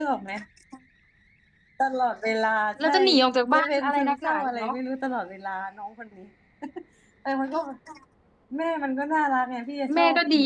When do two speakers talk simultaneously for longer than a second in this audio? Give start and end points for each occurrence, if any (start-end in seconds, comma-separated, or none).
3.5-4.7